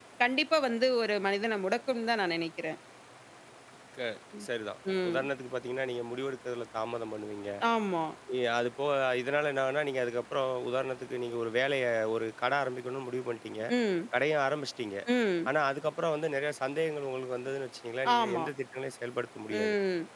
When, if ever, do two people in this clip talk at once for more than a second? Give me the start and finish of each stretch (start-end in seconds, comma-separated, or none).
none